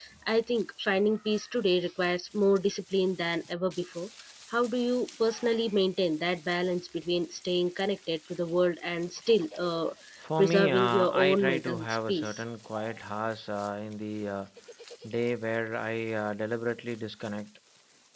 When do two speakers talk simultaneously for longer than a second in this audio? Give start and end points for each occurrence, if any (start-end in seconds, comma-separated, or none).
10.4-12.4